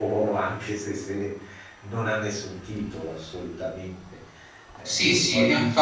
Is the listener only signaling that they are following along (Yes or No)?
No